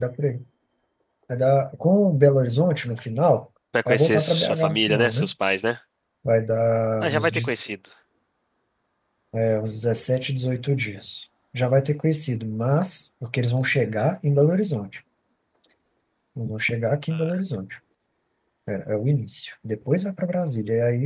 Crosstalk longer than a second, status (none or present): present